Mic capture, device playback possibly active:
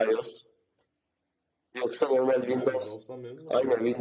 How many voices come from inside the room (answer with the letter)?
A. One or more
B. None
A